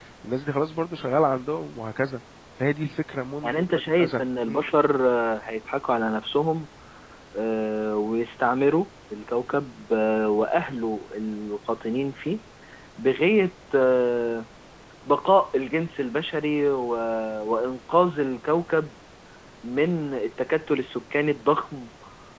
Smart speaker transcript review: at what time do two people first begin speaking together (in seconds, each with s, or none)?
3.4 s